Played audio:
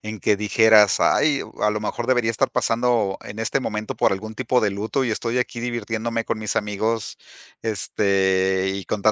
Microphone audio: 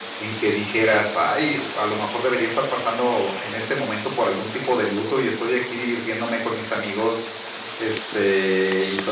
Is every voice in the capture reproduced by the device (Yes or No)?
Yes